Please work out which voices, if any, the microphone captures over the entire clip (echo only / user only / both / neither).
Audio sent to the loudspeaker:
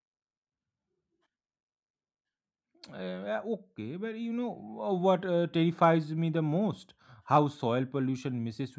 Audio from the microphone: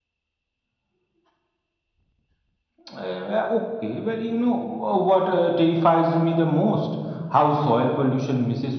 echo only